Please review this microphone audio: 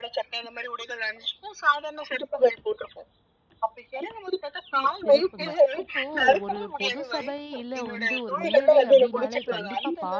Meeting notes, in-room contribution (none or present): present